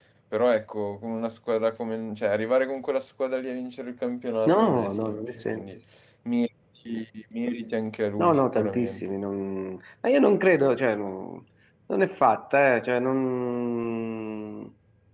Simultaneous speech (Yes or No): Yes